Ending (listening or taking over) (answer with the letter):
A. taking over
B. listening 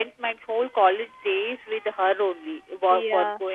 B